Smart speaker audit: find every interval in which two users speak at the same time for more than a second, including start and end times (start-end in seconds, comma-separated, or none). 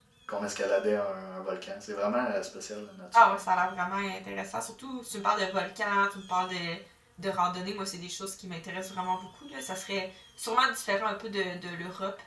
none